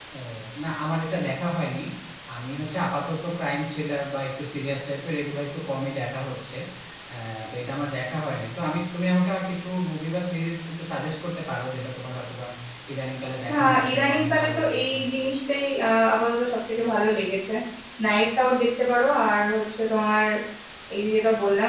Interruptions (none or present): present